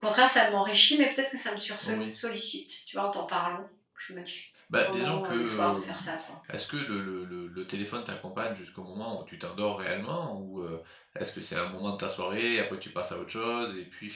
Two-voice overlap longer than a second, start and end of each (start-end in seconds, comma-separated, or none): 4.8-6.1